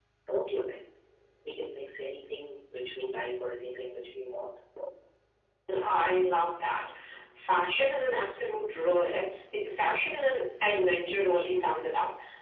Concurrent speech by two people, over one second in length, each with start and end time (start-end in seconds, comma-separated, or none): none